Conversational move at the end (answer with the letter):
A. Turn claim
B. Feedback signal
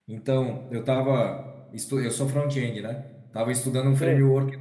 B